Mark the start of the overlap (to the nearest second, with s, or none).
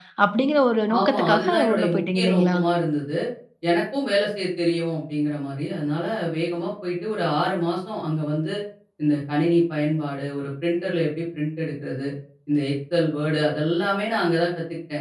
1 s